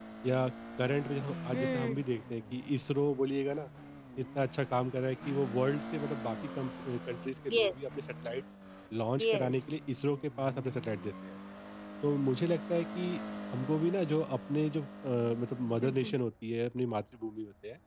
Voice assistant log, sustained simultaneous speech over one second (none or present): none